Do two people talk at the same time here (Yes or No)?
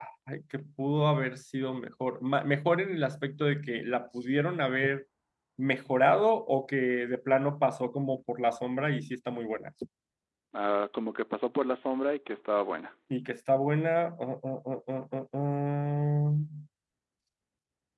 No